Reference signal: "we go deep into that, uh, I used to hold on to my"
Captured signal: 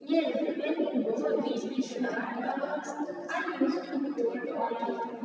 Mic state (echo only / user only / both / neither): both